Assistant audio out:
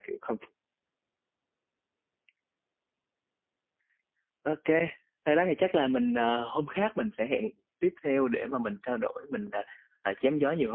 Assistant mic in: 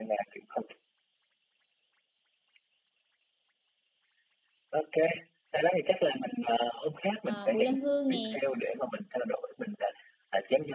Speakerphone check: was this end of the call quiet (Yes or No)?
No